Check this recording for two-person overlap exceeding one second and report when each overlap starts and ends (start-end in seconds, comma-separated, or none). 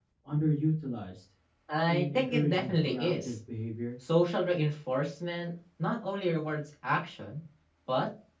1.9-3.4